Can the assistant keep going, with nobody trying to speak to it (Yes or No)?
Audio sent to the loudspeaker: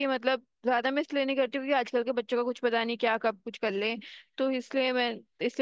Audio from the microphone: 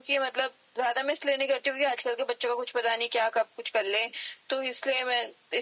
Yes